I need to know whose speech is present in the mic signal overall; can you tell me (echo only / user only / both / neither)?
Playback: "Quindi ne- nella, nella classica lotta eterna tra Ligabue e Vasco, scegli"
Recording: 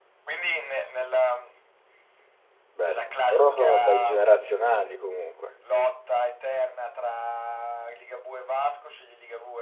both